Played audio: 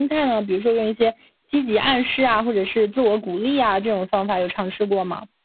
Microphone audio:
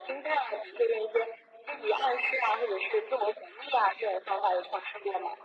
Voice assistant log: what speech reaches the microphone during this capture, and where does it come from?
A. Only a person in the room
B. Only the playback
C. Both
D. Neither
B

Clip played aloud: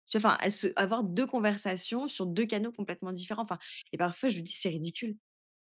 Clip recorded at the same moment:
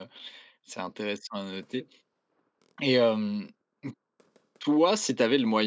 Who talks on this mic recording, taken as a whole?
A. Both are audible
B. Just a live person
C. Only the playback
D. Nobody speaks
B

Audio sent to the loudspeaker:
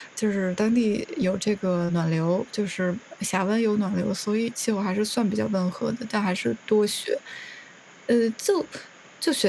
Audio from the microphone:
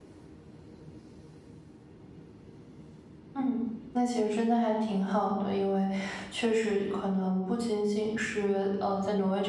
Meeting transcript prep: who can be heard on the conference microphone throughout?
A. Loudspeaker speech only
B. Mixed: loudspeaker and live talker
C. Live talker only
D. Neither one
C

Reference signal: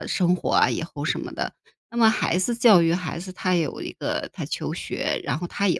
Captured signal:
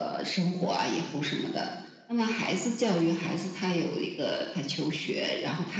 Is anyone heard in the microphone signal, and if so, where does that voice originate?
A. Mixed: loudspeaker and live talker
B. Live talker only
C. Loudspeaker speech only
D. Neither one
C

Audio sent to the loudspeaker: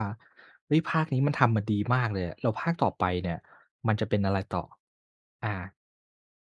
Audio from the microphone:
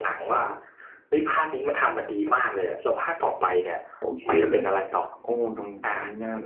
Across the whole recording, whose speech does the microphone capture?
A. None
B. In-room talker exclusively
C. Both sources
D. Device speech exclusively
C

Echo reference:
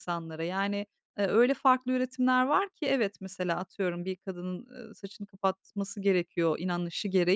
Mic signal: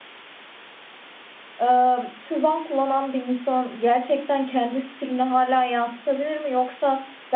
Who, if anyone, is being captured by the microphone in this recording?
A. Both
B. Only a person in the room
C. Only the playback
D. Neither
B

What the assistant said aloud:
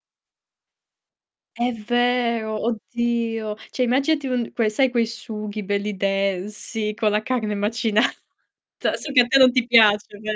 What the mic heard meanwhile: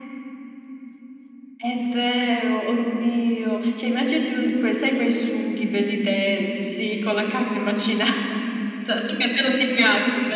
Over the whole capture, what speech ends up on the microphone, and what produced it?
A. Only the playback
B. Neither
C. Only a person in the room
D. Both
A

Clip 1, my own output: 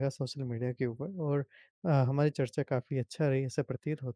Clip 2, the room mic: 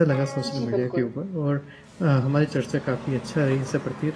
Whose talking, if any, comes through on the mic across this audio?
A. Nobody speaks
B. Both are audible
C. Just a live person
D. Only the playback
B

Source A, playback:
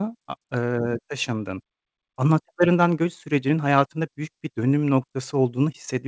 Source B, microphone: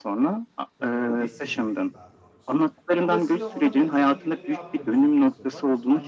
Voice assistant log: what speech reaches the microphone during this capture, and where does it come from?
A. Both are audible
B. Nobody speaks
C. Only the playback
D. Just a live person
A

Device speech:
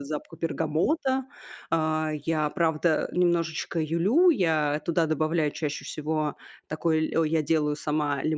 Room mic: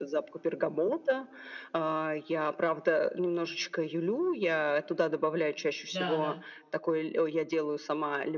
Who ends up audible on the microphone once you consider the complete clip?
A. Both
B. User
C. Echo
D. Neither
A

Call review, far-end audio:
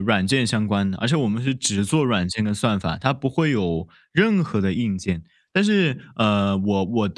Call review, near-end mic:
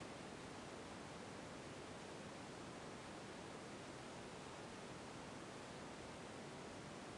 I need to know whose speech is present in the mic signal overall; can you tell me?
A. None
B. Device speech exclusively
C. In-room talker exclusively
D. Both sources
A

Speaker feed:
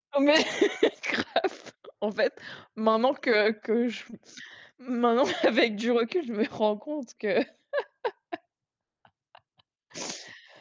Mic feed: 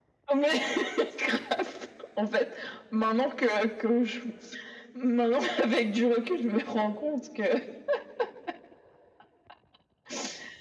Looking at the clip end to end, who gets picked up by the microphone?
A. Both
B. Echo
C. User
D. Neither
B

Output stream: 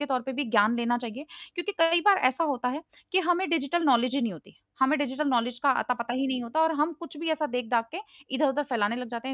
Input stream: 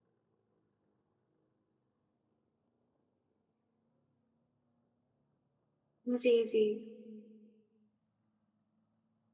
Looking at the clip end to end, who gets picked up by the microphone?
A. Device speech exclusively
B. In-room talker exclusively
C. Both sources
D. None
B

